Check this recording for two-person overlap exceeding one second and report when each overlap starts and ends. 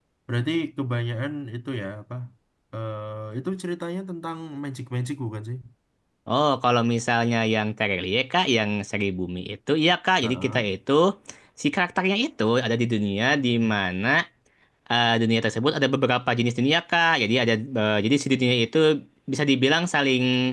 none

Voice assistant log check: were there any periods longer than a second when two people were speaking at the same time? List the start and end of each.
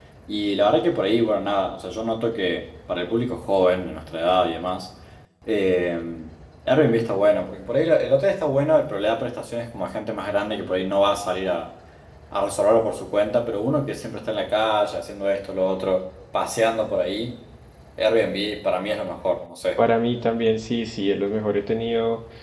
none

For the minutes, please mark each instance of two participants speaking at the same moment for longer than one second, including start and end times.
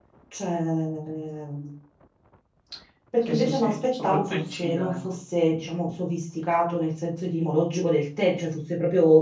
3.3-5.2

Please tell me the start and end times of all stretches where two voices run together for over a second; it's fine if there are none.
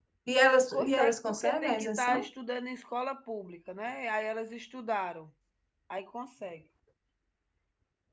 0.7-2.3

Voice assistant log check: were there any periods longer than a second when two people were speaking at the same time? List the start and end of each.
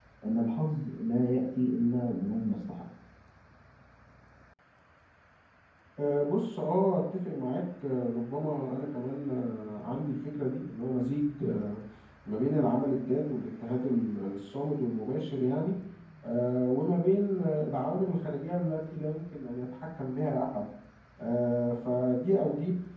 none

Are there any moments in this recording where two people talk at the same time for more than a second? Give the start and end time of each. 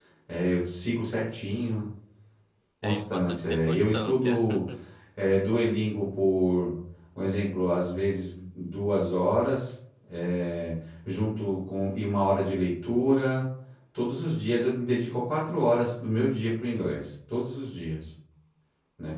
2.8-4.4

